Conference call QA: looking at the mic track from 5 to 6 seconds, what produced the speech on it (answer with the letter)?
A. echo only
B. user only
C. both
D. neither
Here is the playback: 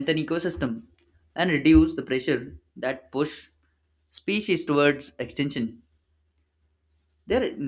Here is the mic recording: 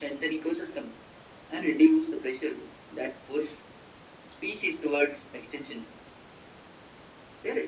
A